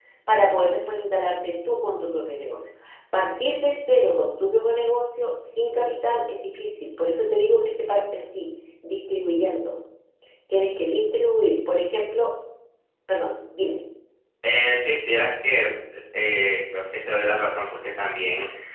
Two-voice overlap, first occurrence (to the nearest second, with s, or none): none